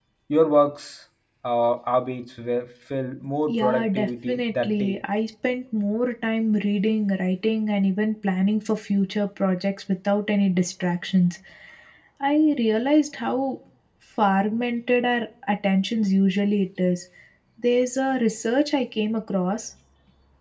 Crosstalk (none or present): present